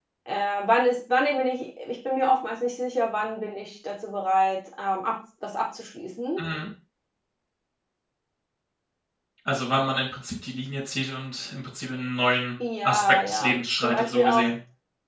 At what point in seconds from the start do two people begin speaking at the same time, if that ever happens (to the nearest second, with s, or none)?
13 s